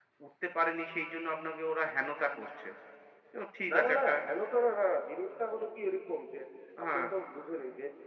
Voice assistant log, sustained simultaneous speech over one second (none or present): none